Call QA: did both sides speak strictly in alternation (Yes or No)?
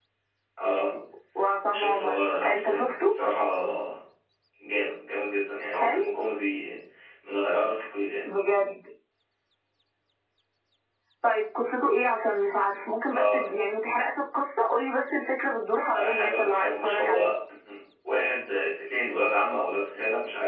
No